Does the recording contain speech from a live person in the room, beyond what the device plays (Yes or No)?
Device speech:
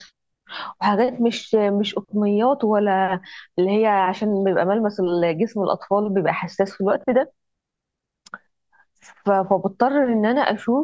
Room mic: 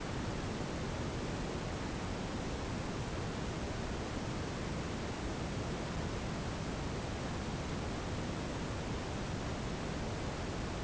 No